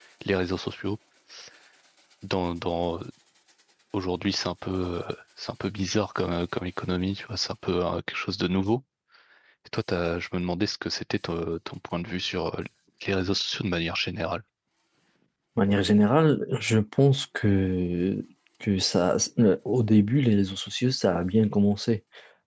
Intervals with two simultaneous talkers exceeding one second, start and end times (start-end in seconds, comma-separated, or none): none